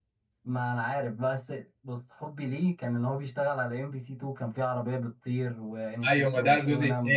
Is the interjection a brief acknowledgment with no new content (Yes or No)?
No